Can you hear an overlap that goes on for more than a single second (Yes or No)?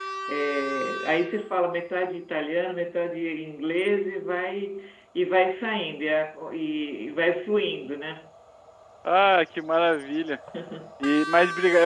No